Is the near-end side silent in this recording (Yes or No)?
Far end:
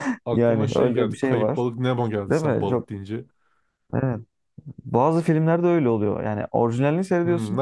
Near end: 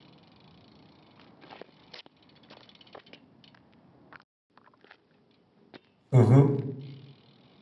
No